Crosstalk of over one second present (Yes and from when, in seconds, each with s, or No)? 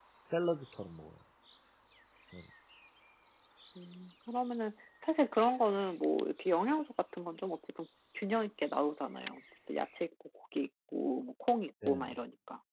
No